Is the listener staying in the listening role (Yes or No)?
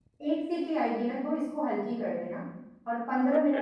Yes